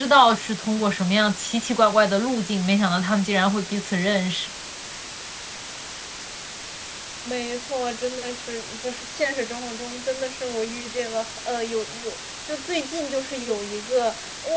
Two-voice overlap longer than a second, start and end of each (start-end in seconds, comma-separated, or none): none